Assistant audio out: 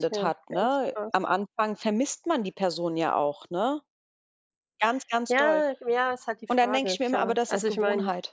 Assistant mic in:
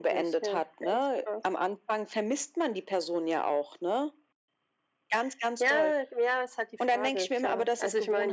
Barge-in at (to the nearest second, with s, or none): none